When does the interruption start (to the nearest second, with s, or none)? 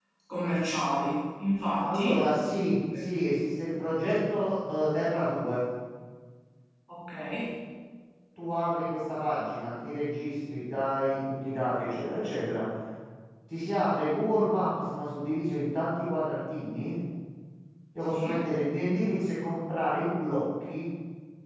2 s